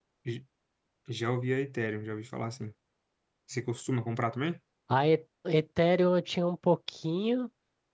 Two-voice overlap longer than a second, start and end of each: none

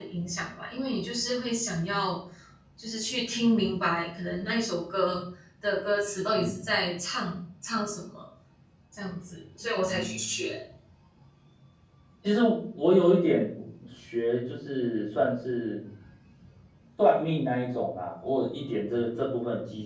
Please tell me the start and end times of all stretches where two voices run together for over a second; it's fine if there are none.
none

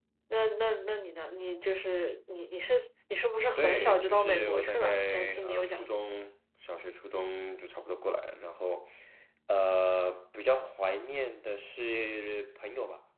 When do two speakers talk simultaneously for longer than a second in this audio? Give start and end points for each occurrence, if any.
3.6-5.9

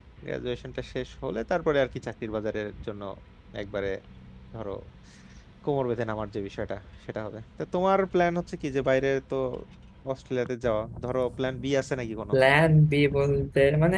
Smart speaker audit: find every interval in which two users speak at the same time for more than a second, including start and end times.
none

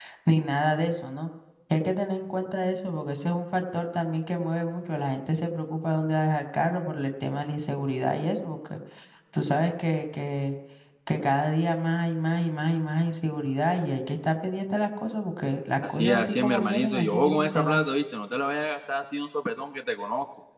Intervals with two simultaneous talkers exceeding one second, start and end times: 15.9-17.9

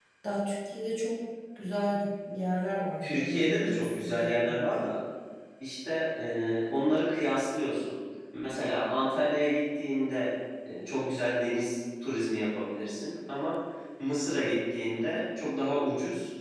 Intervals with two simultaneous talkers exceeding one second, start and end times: 3.0-4.7

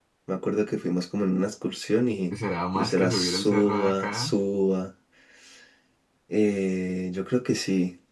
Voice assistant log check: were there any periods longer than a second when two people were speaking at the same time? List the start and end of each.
2.8-4.3

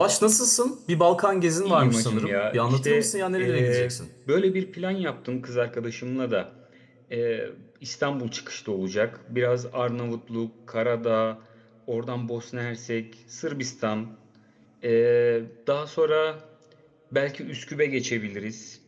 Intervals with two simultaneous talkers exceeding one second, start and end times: 1.6-4.0

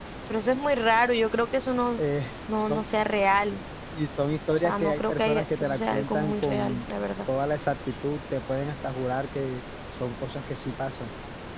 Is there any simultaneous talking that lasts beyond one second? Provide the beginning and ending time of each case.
4.6-6.8

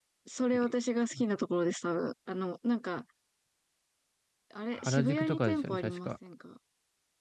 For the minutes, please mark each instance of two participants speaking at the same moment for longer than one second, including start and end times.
4.7-6.1

